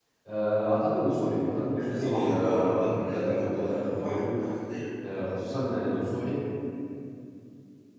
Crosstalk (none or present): present